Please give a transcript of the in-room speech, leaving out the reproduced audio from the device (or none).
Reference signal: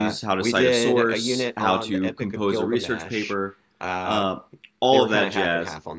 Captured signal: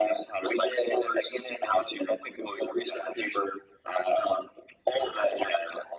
none